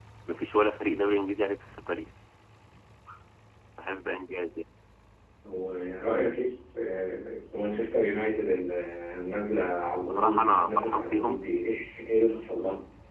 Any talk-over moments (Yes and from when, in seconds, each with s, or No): Yes, from 10.1 s